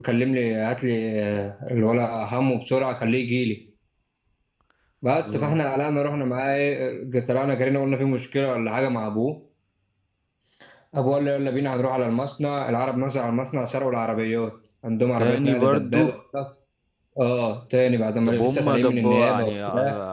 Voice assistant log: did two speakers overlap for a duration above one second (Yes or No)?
Yes